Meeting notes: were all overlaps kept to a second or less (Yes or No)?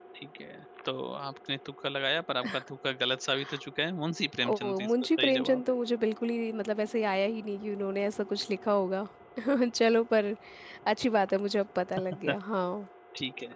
No